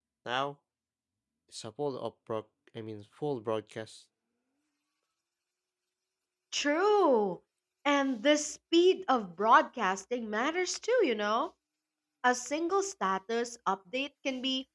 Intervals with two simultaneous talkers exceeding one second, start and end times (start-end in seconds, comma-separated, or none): none